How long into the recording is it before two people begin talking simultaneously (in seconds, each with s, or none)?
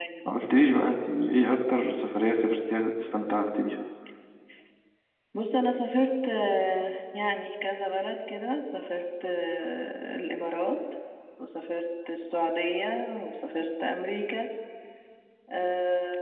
none